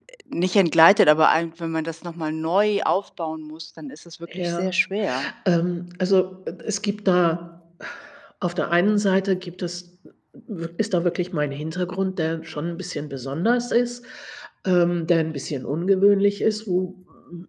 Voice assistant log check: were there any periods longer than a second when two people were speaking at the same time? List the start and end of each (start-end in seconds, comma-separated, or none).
none